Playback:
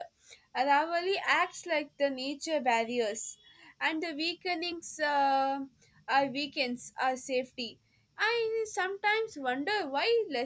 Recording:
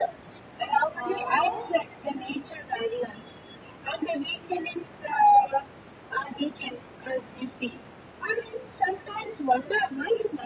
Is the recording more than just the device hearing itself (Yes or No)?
Yes